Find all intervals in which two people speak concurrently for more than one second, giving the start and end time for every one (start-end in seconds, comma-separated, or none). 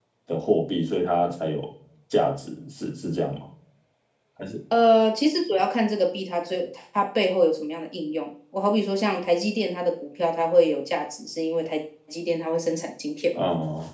none